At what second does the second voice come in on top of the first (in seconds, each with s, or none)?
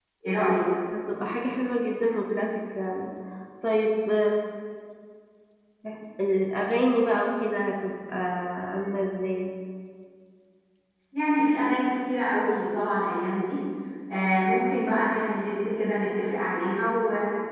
none